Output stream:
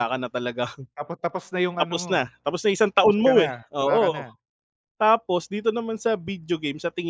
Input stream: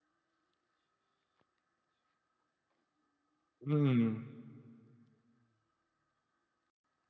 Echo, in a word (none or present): none